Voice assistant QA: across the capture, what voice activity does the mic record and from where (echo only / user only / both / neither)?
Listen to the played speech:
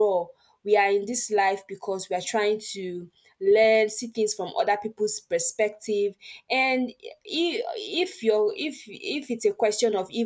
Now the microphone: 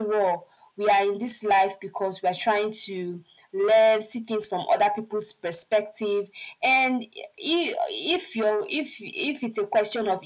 echo only